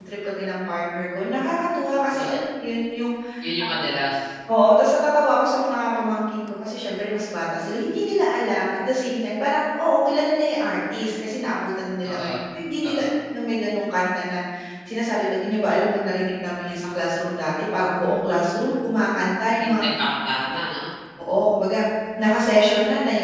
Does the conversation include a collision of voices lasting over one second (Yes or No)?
No